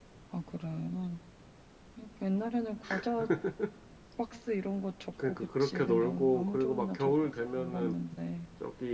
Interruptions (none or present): present